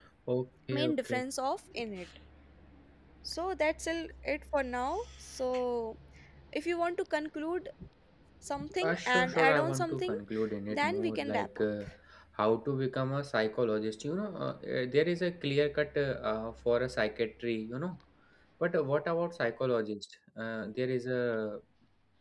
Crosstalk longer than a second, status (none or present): present